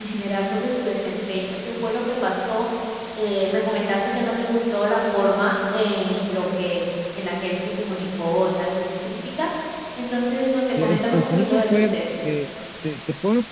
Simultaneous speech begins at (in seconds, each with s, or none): 10.7 s